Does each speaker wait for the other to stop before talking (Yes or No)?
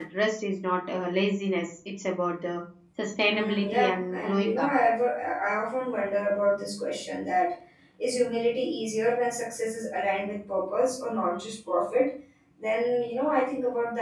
No